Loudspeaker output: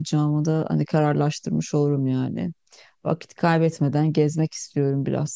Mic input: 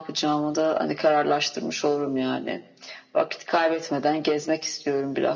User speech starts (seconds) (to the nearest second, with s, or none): none